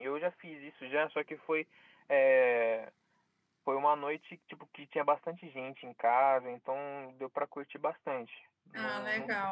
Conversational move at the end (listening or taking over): taking over